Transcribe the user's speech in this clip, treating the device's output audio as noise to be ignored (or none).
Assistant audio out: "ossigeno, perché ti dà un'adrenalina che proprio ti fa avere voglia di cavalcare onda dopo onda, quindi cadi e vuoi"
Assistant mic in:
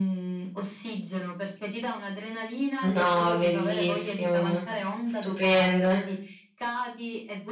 No, bellissimo, stupendo.